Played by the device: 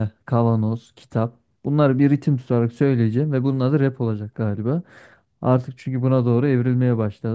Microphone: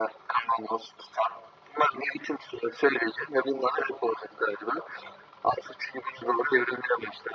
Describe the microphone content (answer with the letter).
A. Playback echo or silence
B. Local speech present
A